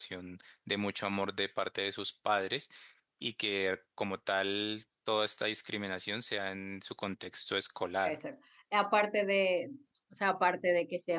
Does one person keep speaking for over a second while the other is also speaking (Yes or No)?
No